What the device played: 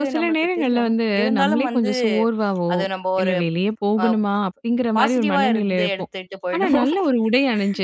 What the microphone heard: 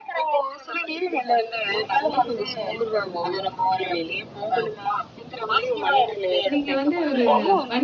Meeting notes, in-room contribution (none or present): present